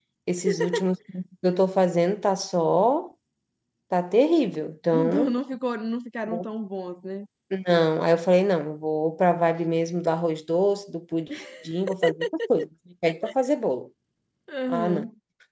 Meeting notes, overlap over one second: none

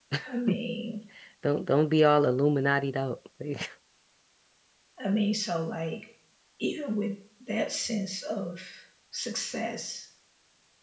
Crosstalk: none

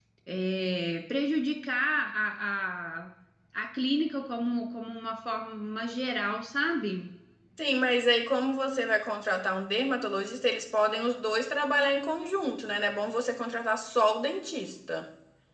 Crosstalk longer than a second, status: none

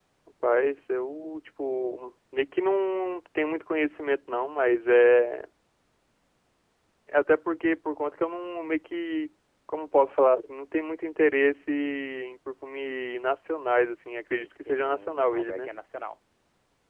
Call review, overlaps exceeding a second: present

